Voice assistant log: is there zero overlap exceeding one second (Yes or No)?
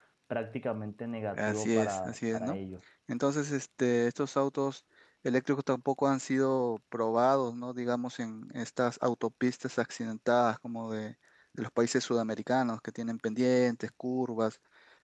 No